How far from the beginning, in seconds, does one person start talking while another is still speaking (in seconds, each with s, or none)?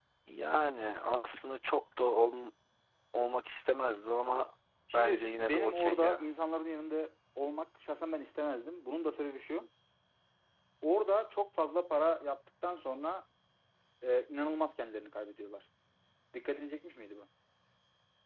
4.9 s